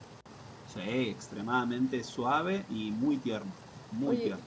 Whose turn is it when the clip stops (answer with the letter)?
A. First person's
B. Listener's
B